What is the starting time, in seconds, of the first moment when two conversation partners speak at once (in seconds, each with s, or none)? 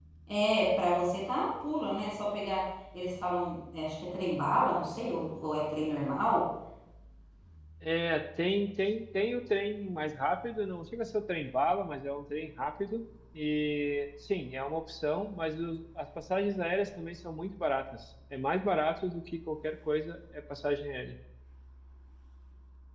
none